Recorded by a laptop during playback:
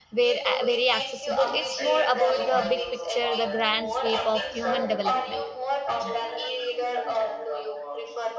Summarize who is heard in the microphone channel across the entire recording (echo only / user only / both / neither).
both